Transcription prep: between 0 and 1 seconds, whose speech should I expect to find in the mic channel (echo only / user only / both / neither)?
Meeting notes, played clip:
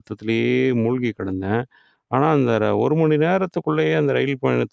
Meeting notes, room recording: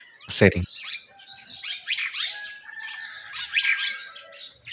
user only